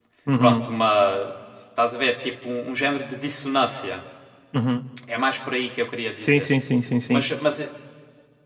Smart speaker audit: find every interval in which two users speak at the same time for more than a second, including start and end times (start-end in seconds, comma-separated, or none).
none